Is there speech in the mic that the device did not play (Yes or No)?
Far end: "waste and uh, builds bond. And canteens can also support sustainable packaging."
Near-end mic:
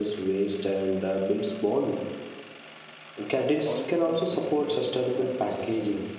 Yes